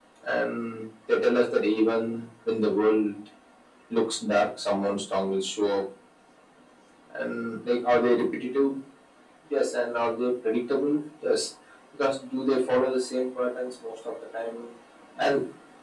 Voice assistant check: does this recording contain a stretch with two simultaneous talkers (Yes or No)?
No